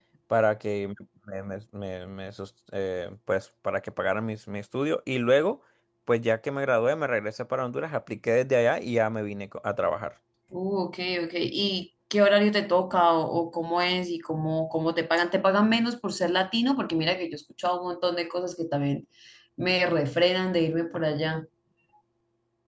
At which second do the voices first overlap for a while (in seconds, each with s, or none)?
none